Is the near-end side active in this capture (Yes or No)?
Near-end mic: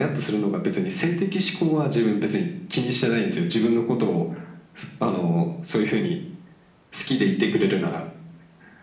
No